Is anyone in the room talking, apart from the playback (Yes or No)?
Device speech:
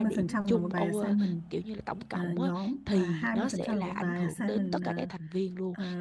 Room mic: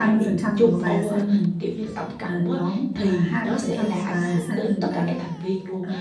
No